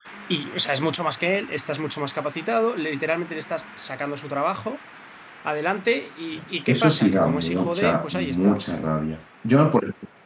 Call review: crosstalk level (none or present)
present